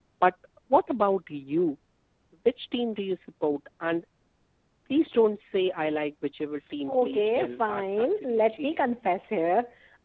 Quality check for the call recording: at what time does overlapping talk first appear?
6.9 s

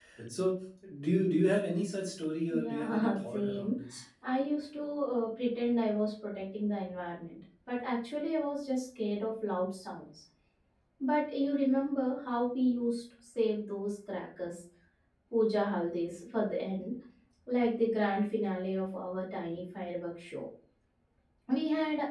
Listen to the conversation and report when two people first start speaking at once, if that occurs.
2.5 s

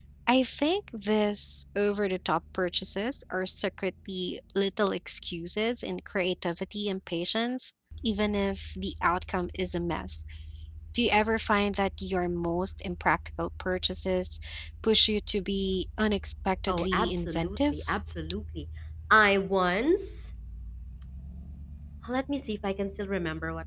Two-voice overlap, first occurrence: 16.7 s

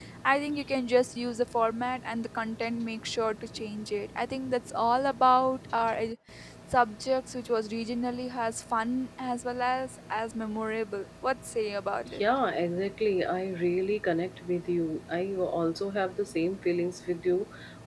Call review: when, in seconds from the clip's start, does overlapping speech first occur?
none

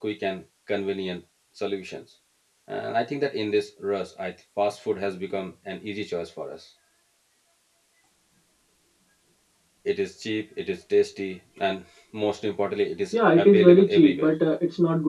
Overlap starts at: 13.1 s

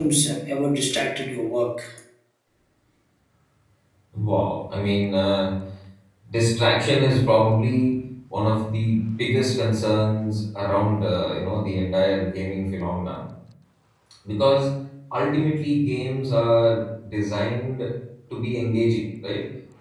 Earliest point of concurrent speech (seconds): none

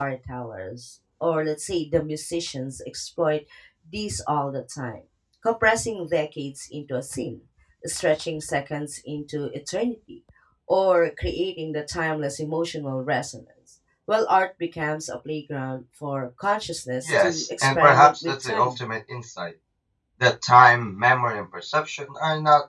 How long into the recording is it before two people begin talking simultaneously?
17.1 s

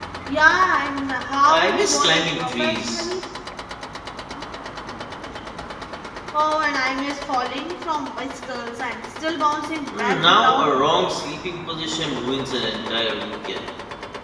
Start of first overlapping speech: 1.5 s

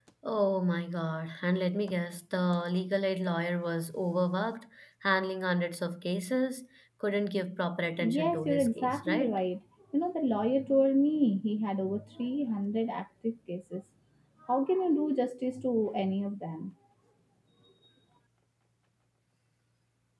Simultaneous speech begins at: 8.0 s

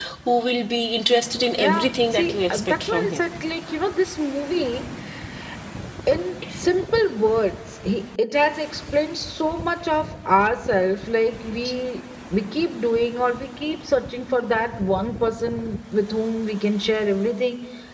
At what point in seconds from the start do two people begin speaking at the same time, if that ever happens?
1.6 s

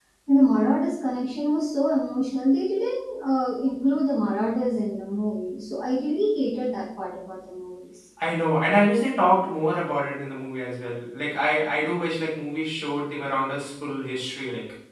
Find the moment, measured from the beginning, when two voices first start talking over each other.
none

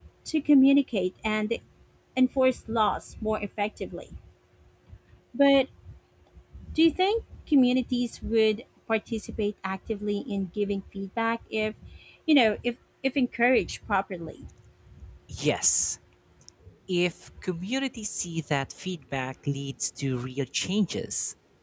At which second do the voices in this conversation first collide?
none

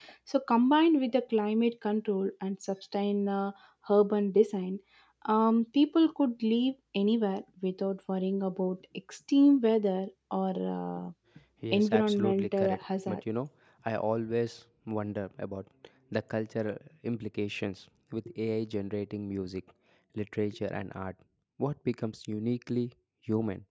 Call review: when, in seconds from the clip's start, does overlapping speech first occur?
11.7 s

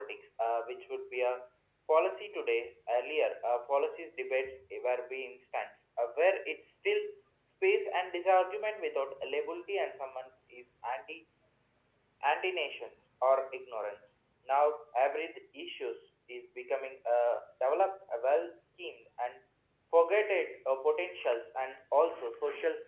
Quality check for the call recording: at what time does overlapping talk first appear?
none

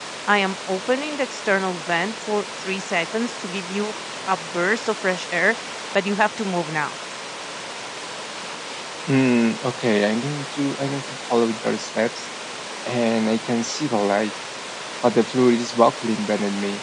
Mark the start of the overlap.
none

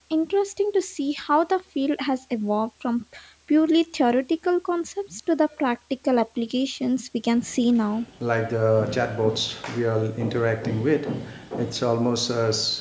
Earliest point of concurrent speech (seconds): none

